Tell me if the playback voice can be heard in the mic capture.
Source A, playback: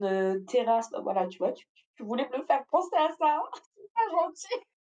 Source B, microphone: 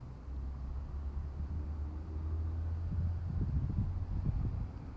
No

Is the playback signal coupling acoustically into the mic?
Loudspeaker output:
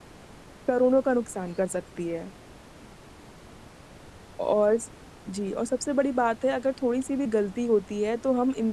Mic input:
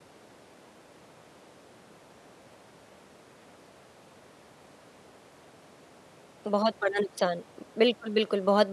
No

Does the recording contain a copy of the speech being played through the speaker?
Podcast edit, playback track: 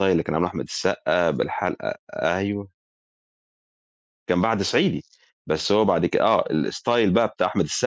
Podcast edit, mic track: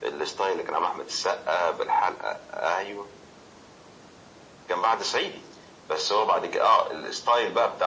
Yes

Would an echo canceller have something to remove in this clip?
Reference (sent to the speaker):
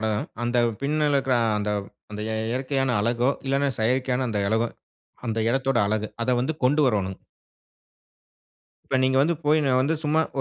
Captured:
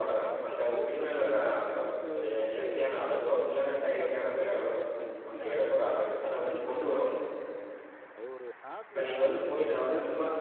Yes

